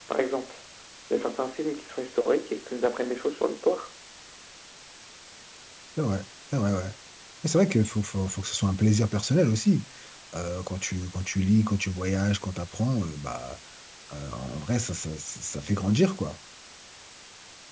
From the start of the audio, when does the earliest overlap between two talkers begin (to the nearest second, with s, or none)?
none